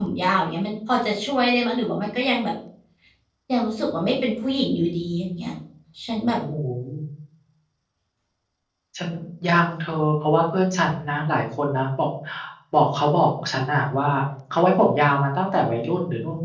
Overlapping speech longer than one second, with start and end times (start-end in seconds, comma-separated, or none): none